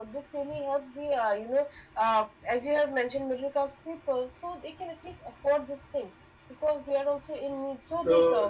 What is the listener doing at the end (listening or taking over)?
taking over